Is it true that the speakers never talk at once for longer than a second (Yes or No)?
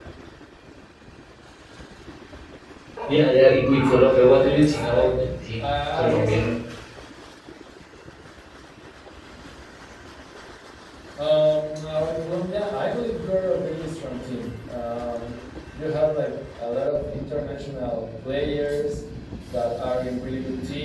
No